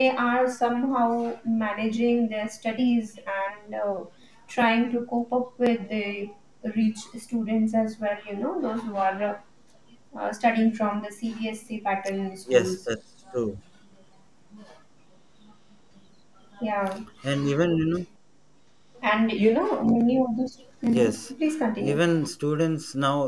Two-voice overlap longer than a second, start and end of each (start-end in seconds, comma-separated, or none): none